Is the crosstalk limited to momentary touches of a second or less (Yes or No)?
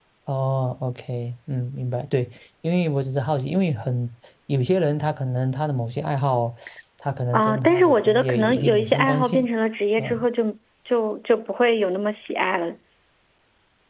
No